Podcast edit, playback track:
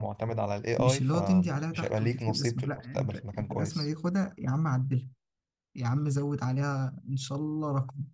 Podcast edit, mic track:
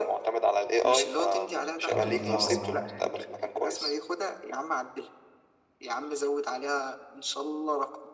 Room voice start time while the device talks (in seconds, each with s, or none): 1.8 s